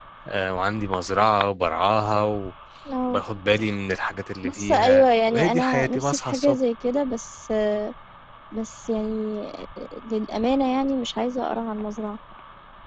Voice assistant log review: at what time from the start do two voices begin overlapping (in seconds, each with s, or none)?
4.4 s